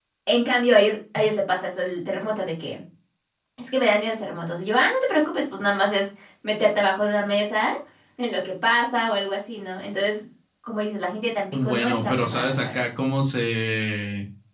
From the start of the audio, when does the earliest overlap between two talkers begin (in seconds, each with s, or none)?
11.5 s